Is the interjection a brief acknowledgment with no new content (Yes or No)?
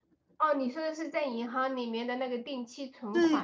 No